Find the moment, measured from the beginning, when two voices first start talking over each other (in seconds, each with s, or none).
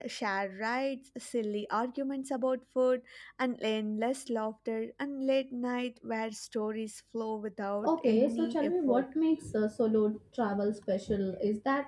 7.8 s